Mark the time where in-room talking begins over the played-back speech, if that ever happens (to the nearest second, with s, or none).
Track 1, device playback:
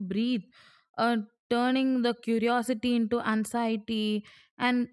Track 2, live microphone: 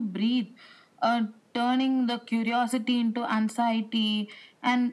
none